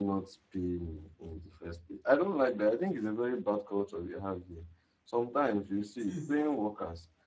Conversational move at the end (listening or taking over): listening